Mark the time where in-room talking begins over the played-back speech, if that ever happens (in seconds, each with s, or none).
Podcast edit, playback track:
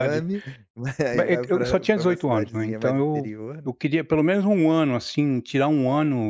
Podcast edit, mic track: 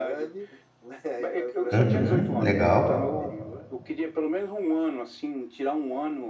1.7 s